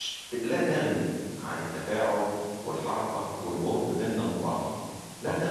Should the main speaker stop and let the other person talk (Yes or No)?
Yes